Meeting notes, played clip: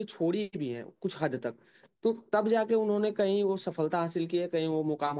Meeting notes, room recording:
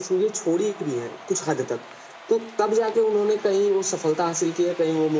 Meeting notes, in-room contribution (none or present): none